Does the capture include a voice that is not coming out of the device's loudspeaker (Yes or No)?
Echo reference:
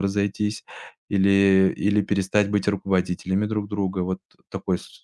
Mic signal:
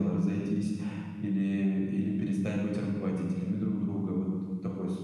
No